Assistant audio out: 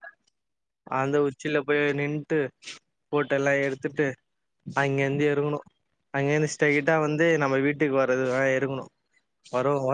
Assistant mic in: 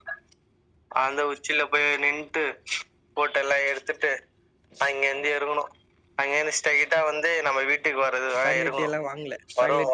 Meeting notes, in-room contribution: present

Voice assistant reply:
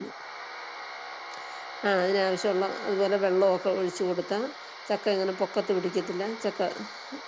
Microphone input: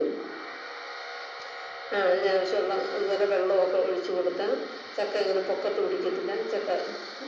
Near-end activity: none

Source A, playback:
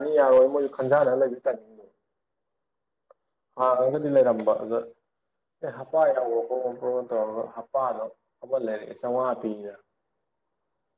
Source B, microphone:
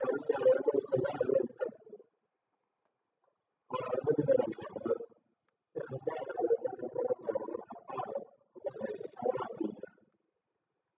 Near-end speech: none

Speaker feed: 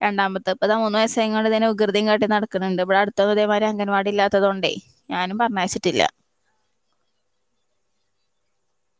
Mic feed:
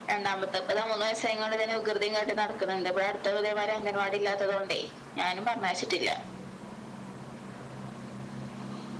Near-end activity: none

